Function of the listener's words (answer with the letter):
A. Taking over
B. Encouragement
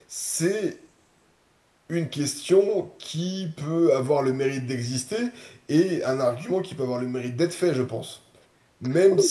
A